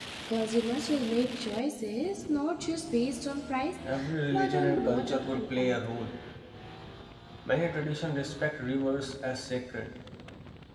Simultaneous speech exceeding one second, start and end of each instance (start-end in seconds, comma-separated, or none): 4.3-5.8